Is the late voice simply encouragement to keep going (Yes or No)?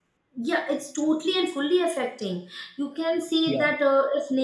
Yes